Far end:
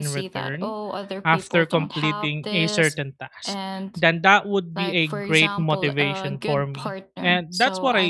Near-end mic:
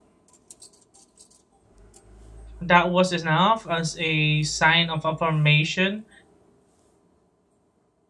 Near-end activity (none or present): present